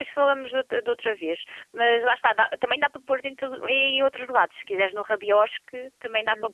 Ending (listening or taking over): taking over